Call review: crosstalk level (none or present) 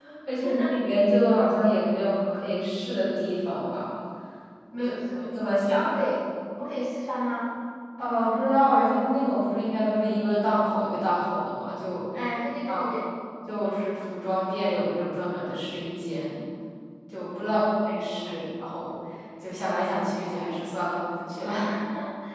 present